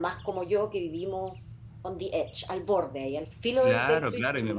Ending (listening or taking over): taking over